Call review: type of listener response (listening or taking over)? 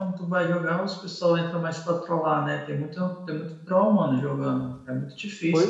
taking over